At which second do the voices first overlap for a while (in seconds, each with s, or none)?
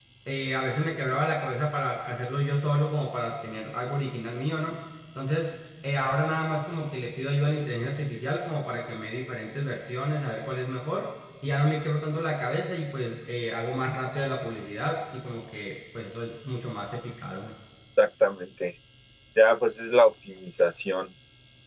none